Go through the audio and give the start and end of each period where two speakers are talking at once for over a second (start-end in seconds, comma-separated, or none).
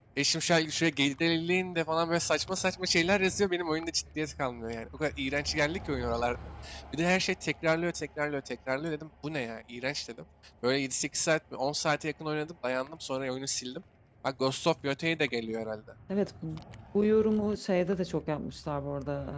none